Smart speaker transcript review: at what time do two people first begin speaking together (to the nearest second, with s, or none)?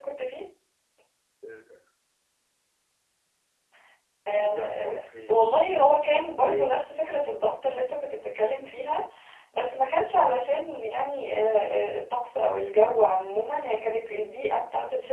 4 s